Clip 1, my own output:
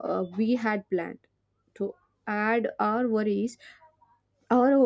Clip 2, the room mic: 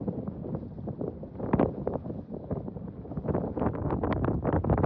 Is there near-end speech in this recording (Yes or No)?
No